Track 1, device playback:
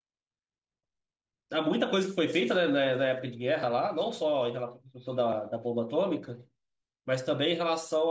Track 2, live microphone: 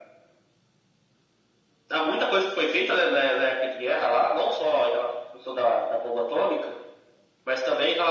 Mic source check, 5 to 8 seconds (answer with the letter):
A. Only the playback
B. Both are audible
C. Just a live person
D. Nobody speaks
A